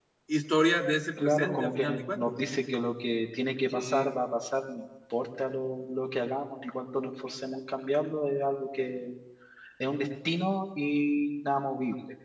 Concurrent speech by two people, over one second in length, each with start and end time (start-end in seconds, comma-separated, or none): 1.2-2.5